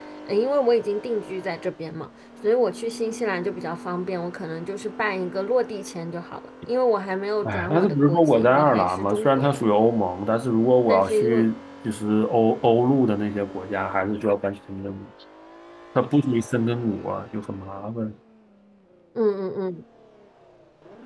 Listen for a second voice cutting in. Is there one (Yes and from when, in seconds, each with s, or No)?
Yes, from 7.4 s